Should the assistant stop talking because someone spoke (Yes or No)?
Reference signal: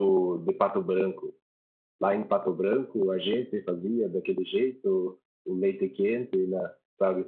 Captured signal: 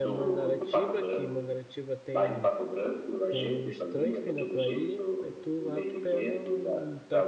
Yes